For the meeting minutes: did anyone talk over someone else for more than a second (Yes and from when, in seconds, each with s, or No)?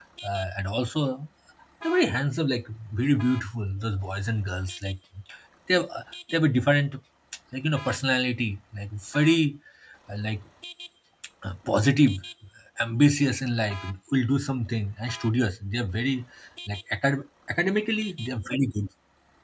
No